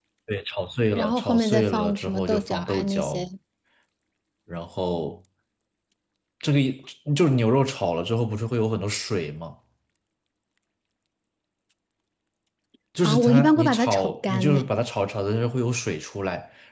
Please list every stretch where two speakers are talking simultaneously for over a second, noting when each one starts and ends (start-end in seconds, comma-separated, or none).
1.0-3.2, 13.0-14.7